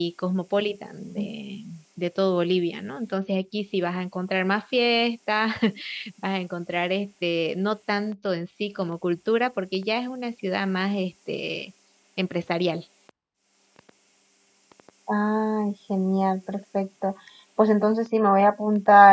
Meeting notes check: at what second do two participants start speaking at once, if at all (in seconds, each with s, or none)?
none